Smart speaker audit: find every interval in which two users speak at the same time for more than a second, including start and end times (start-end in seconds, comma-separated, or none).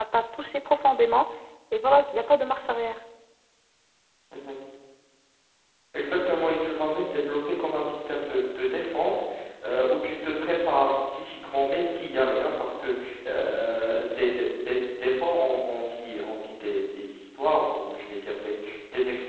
none